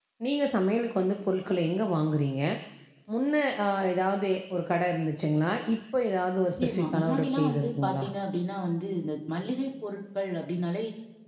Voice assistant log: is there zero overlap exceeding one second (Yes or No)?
No